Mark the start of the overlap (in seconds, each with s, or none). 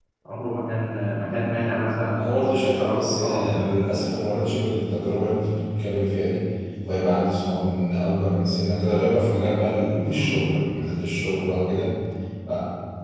2.2 s